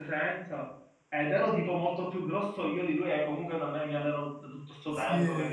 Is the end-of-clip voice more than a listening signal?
Yes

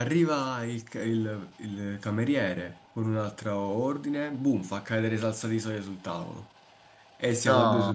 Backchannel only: Yes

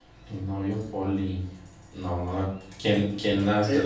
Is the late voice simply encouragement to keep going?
No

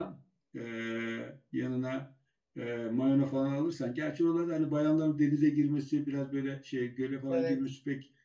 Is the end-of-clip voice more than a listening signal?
No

